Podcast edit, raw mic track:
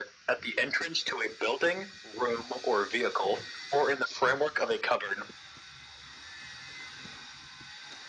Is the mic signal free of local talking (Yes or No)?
Yes